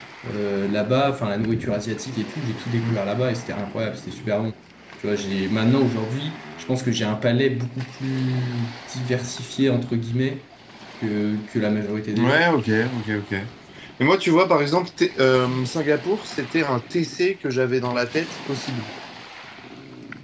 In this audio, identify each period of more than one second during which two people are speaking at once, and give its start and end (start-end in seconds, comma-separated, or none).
none